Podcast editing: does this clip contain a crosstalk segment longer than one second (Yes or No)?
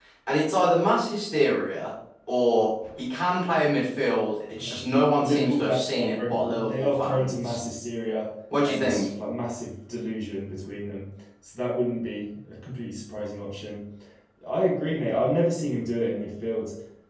Yes